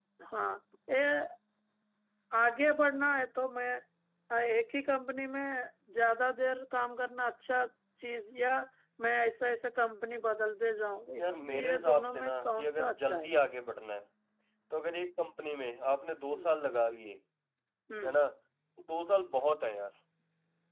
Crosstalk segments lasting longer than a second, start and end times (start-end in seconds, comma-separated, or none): 11.2-13.3